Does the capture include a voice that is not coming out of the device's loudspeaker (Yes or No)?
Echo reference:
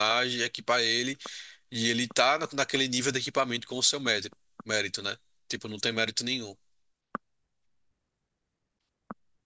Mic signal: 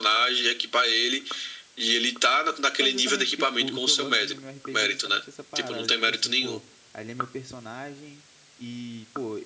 Yes